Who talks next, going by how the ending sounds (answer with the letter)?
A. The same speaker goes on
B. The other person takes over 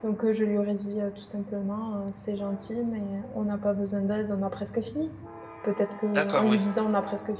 A